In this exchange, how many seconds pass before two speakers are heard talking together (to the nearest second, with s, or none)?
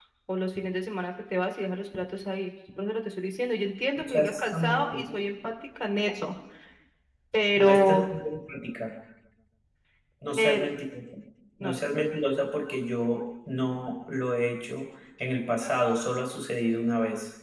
4 s